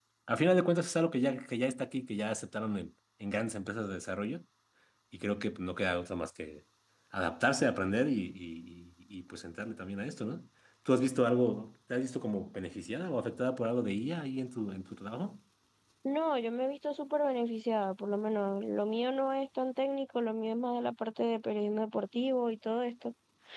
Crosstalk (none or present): none